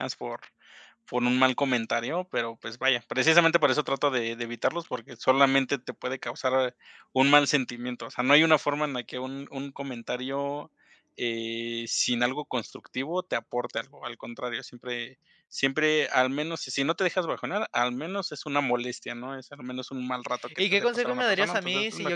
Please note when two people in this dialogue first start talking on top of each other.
20.6 s

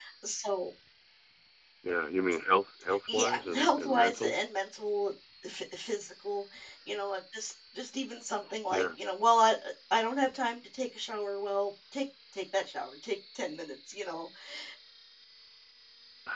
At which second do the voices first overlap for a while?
3.1 s

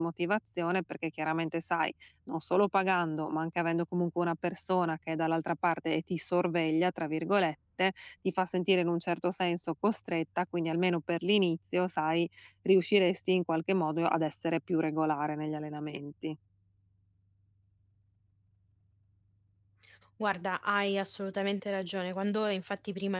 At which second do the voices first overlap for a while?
none

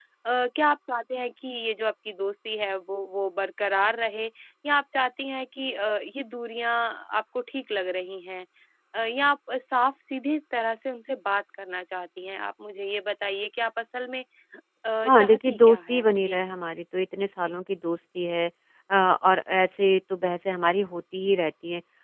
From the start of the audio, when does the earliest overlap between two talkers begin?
15.0 s

